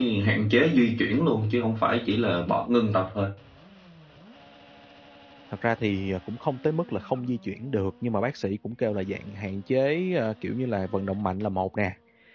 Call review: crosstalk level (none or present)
none